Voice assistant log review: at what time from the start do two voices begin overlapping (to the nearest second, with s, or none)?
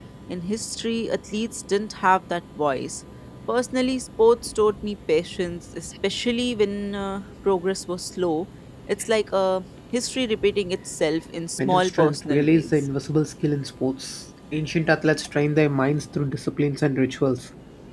12 s